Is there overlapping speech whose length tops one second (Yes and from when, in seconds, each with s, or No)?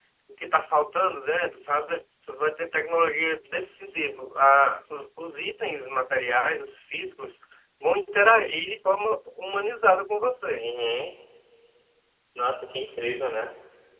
No